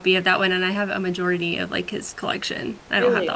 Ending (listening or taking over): taking over